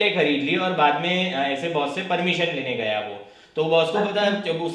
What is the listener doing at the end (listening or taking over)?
listening